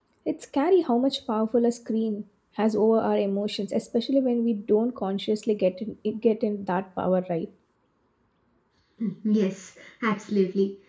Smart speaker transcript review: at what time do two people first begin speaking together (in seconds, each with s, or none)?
none